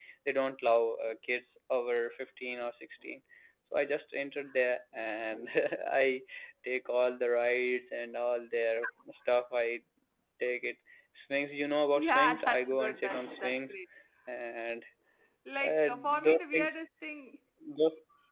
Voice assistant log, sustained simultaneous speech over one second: present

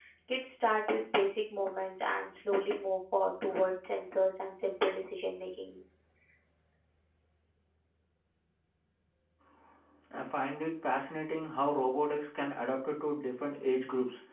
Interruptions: none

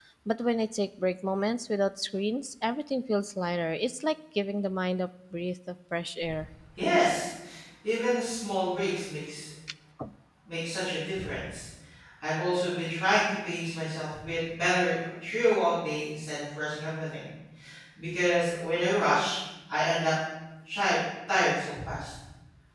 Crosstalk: none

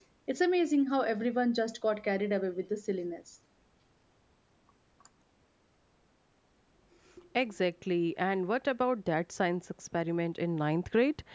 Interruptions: none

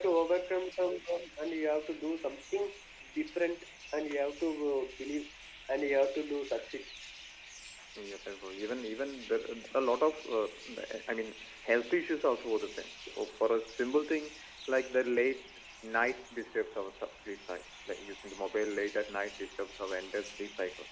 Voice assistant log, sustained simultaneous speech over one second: none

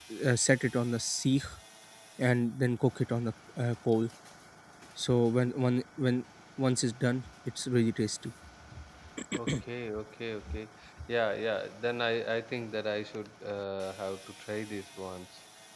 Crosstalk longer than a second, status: none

